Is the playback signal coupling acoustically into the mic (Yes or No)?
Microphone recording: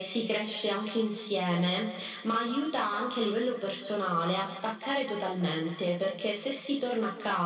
Yes